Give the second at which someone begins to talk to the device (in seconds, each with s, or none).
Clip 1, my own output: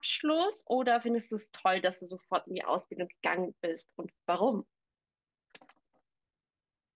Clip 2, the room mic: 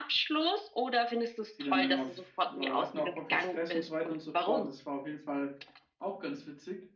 1.5 s